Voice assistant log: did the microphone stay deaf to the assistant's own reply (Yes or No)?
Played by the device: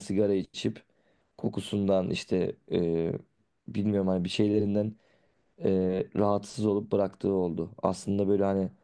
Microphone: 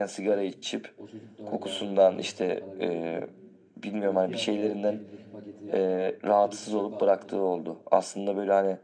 No